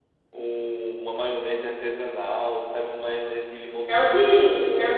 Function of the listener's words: taking over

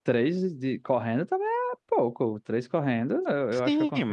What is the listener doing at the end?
taking over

